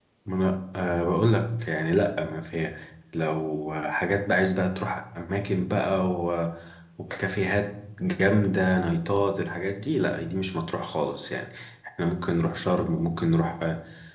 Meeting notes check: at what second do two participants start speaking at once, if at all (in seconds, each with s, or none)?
none